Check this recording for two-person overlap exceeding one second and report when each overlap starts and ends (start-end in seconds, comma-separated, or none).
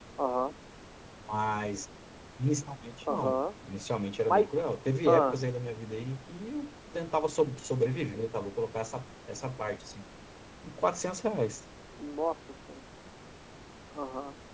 none